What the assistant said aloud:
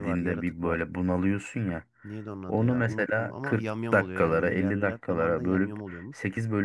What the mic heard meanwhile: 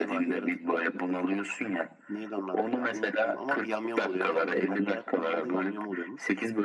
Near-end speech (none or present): none